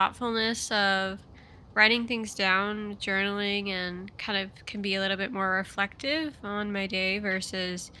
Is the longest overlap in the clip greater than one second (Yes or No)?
No